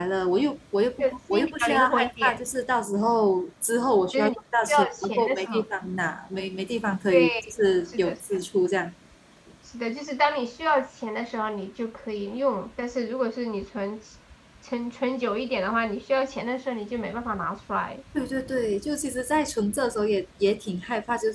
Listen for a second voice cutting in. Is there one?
Yes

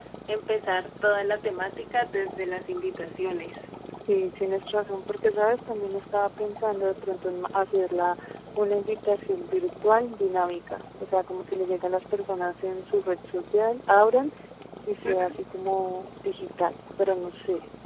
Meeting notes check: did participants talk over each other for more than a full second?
No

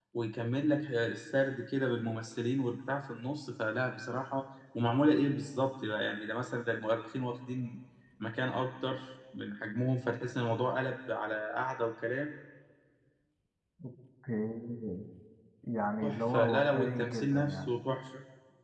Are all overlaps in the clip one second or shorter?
No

